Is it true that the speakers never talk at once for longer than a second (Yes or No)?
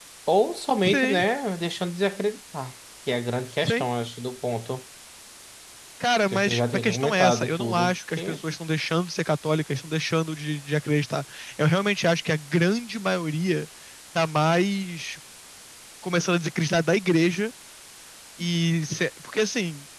No